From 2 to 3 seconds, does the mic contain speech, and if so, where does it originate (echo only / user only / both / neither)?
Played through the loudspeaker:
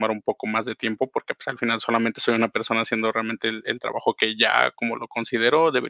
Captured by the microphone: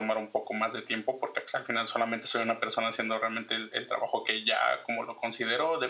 echo only